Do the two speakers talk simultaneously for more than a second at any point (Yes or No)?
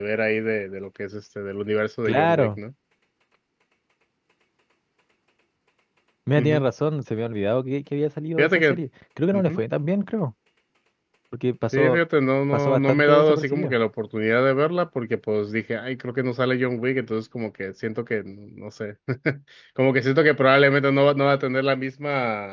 Yes